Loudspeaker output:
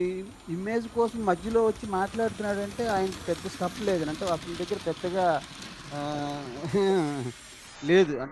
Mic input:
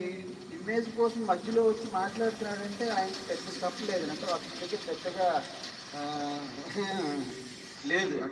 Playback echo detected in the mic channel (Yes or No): Yes